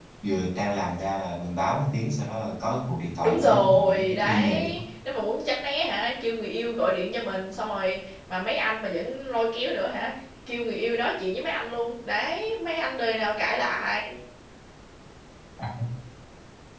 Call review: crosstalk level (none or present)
present